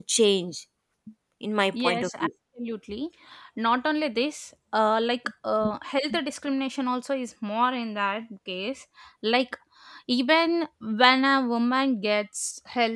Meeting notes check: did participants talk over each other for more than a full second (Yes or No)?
No